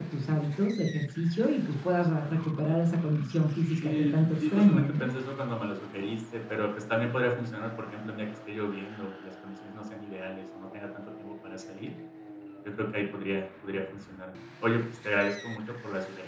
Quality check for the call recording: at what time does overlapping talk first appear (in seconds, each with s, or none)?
3.8 s